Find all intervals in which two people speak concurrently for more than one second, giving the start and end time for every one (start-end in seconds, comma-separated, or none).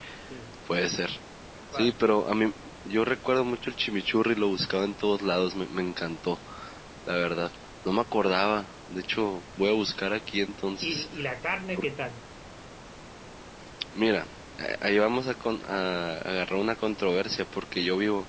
none